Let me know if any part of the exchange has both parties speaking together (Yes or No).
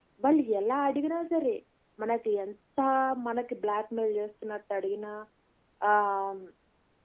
No